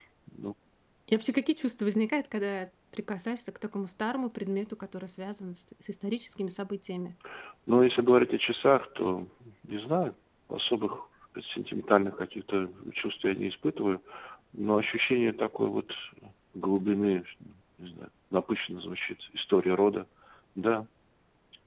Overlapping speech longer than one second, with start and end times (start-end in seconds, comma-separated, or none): none